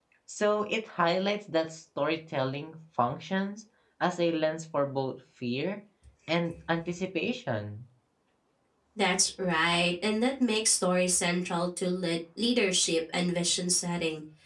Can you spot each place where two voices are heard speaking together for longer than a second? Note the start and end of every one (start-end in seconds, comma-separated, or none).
none